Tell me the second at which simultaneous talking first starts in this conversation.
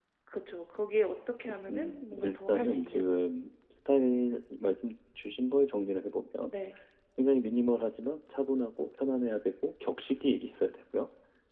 1.4 s

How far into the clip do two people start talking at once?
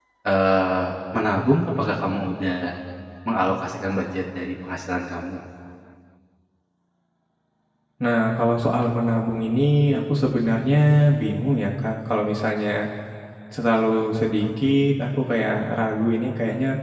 none

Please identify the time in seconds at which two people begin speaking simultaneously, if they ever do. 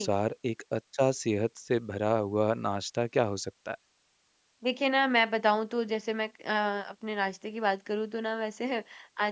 none

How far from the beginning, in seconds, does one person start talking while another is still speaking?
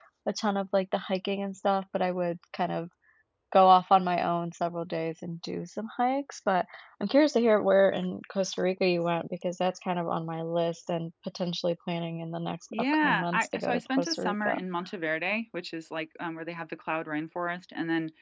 12.7 s

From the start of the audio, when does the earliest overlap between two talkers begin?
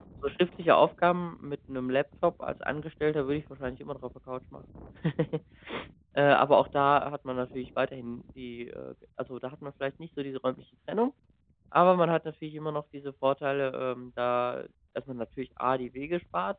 none

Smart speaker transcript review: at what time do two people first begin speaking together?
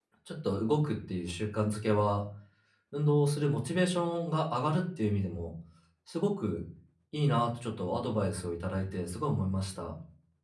none

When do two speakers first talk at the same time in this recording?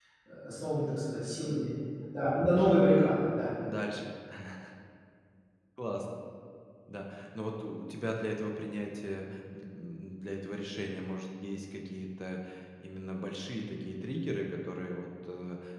none

